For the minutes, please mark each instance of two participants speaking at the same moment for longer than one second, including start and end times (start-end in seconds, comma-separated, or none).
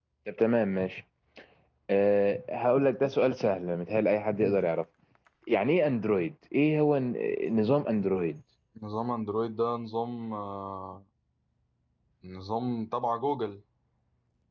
none